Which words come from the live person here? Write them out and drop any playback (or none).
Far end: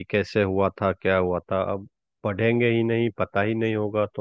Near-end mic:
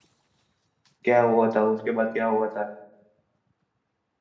क्या हुआ था उसके बाद क्या हुआ था